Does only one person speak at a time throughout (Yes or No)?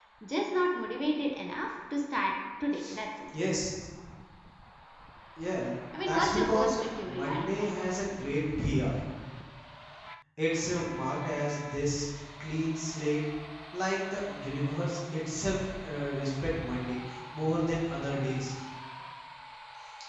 No